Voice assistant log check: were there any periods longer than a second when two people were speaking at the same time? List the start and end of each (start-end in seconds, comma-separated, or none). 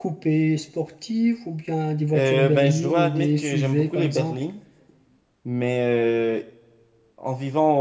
2.2-4.4